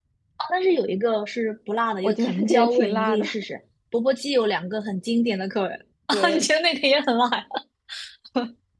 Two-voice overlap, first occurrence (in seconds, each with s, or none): 2.0 s